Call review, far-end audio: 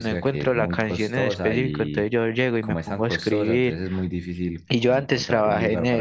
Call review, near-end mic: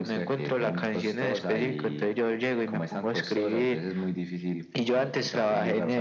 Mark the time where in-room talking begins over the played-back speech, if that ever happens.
none

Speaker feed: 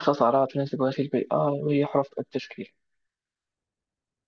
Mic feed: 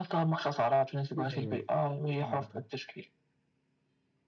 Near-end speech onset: 1.1 s

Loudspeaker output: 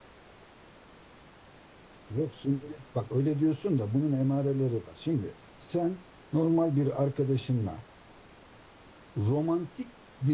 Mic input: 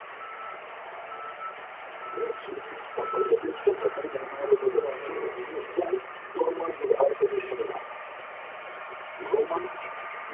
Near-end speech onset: 4.6 s

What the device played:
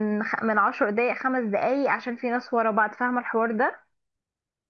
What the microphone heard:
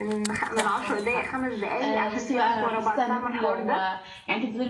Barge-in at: 0.5 s

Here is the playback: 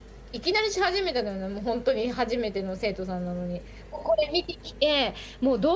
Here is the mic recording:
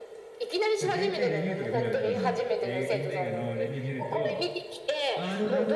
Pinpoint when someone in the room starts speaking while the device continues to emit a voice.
0.8 s

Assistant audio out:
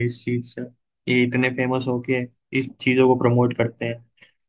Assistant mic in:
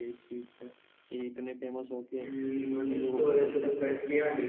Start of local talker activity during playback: 2.0 s

